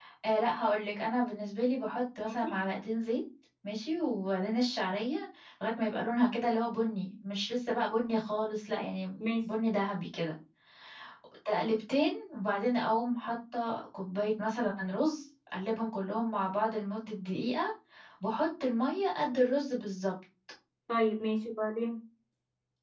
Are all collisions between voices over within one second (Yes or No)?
Yes